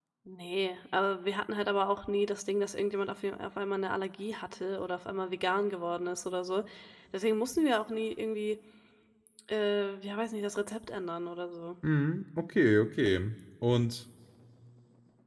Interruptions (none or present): none